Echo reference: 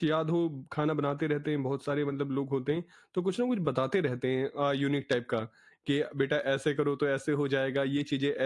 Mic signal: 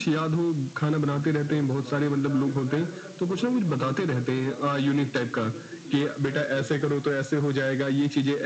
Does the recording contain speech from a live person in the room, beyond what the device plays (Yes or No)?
Yes